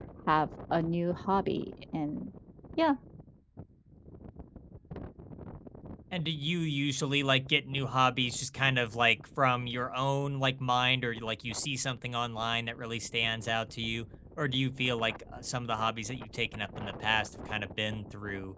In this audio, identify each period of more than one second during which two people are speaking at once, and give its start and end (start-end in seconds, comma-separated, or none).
none